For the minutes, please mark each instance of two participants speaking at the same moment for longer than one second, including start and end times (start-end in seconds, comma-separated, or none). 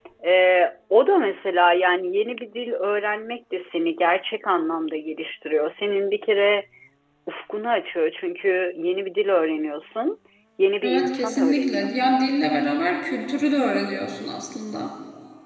10.8-12.2